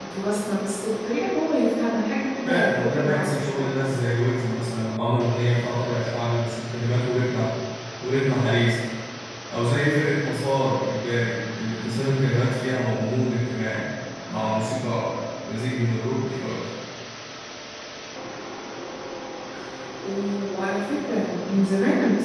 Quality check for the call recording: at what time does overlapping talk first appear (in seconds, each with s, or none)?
2.5 s